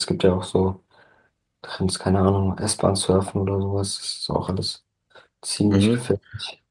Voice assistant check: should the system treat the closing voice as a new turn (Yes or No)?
Yes